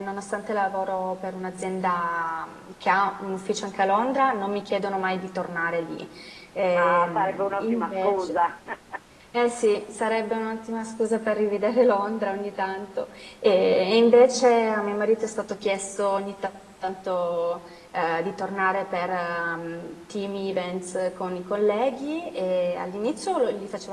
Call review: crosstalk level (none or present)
present